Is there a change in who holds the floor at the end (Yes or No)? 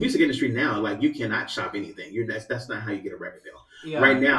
No